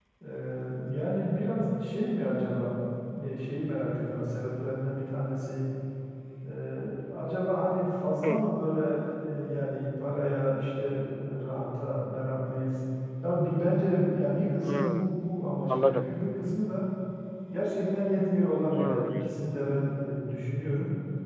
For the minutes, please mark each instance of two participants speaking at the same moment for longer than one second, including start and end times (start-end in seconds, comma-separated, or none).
none